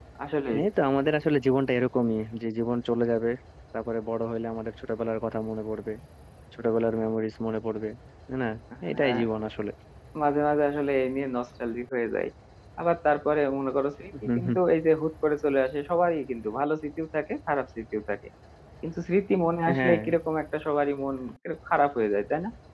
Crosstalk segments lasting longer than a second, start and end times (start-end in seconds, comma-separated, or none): none